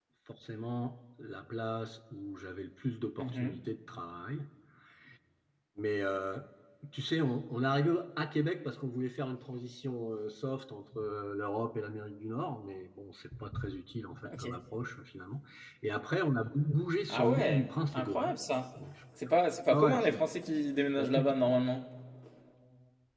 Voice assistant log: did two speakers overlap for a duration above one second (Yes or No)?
Yes